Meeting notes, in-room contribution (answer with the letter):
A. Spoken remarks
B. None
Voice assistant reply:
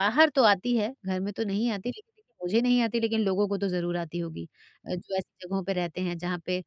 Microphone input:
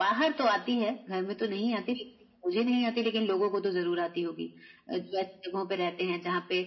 B